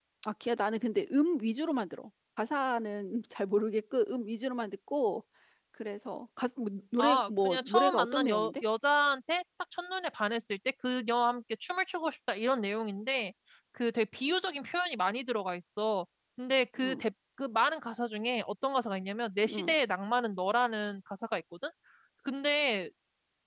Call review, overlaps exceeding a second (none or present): present